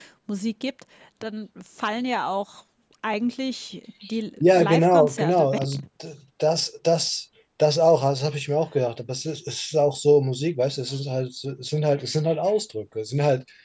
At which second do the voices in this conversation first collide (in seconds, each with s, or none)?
4.4 s